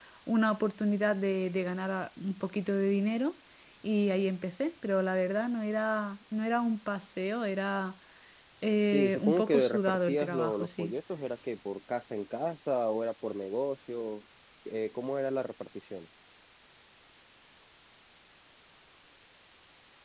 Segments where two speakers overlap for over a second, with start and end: 8.9-10.9

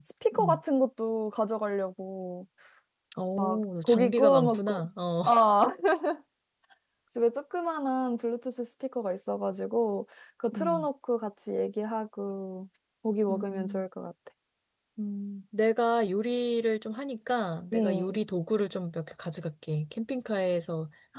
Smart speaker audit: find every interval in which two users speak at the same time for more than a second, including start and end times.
3.4-4.8

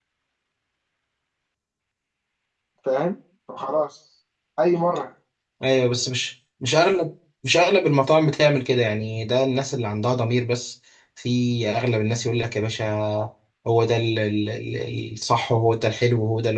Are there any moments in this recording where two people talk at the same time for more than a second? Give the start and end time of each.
none

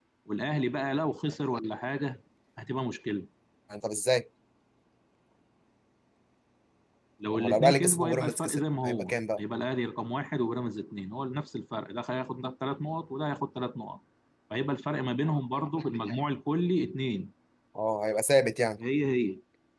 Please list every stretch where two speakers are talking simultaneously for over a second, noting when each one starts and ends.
7.3-9.4

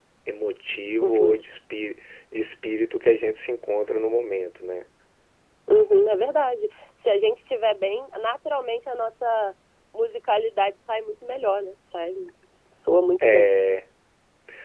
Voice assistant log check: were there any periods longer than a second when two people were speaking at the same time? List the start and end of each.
none

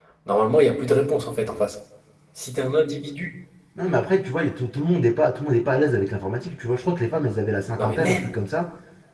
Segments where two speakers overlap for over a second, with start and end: none

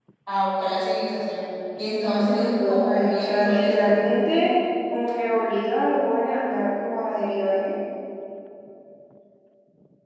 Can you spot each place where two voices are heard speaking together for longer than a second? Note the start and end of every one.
2.0-4.0

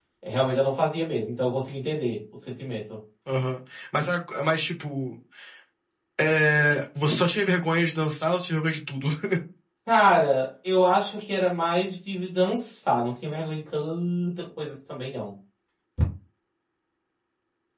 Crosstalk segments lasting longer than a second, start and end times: none

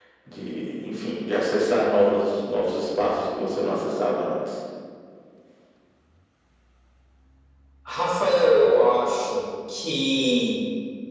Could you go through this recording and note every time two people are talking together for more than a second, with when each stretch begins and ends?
none

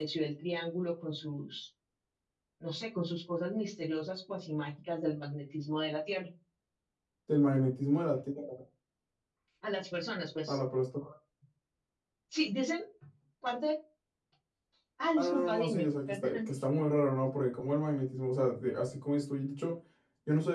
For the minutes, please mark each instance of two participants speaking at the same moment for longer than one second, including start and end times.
15.2-16.5

